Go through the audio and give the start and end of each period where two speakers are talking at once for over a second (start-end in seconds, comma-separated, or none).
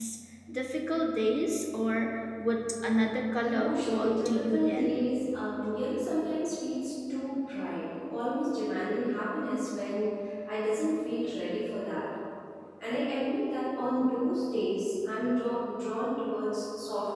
3.4-4.9